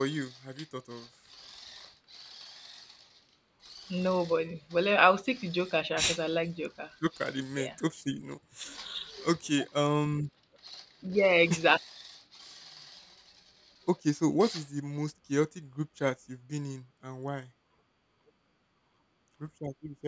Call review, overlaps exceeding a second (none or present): none